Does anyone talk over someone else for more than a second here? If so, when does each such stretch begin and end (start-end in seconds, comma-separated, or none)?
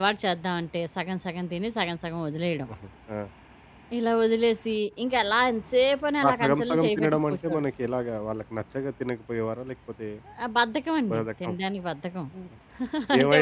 6.3-7.7